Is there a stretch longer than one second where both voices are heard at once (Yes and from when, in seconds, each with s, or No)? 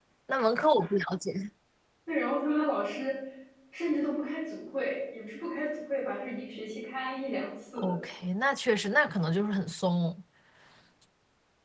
No